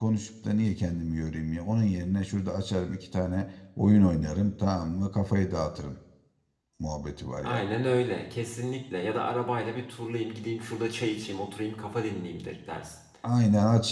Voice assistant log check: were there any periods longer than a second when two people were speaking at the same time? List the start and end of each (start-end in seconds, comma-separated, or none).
none